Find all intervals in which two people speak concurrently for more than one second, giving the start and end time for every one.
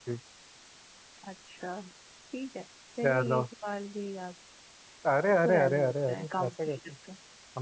5.4-6.8

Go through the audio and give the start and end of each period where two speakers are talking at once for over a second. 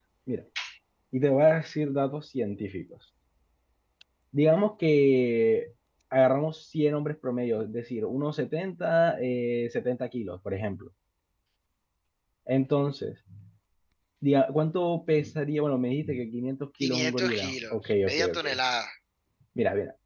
16.8-18.4

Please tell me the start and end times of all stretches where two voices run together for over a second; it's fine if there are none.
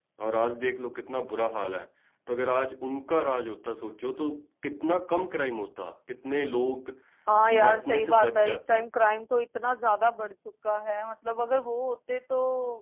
7.5-8.8

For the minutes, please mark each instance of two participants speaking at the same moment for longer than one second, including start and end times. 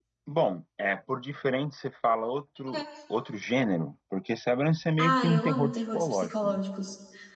5.0-6.6

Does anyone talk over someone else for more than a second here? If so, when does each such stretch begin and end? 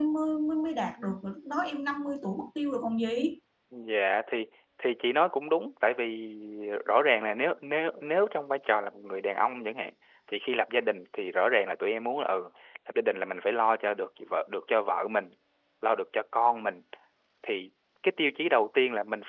none

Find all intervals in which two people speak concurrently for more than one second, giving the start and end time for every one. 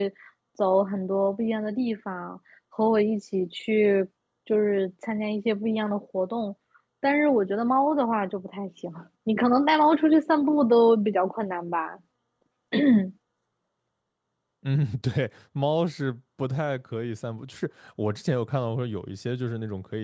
none

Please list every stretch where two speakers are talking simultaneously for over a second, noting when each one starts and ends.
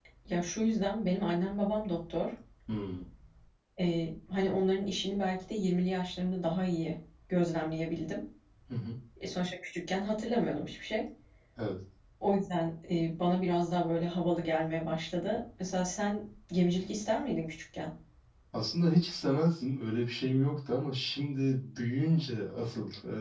none

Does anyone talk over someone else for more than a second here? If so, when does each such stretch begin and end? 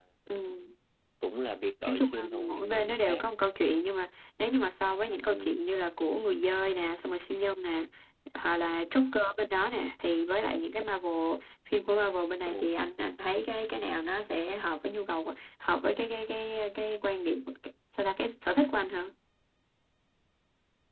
1.9-3.2

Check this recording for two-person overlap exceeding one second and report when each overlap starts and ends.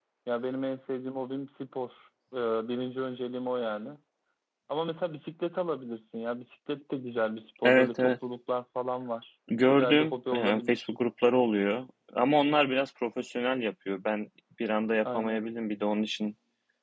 9.7-10.9

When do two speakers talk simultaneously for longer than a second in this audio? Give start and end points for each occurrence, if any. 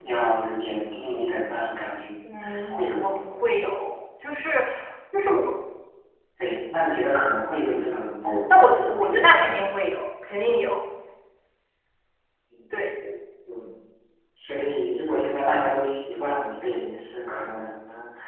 8.2-9.7

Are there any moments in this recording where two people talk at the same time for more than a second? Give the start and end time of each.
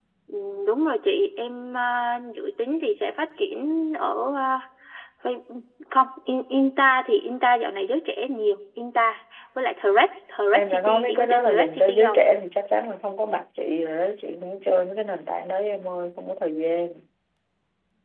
10.5-12.2

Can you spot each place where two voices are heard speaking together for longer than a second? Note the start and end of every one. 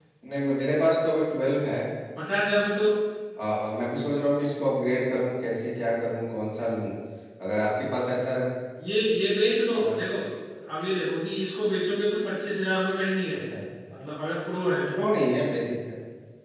none

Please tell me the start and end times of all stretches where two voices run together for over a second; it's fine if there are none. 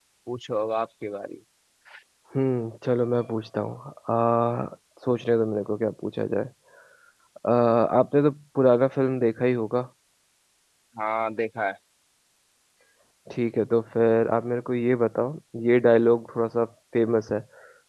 none

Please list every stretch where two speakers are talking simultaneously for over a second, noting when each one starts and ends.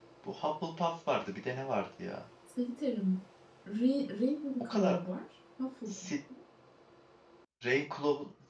none

